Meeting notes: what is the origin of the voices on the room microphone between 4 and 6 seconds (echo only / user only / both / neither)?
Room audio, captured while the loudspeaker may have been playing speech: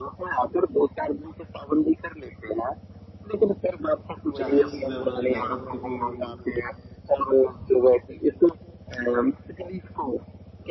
both